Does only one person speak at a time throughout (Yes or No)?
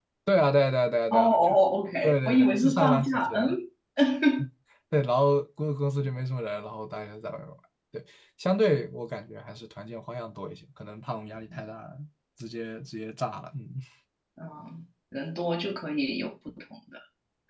No